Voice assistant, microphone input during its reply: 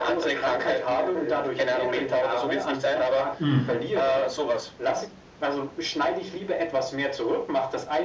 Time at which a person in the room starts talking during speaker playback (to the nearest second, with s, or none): 3 s